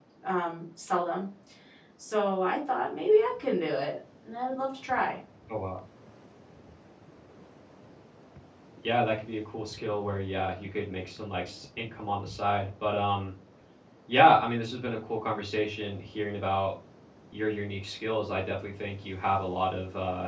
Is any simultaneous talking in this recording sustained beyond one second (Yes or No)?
No